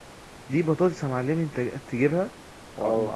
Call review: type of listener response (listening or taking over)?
listening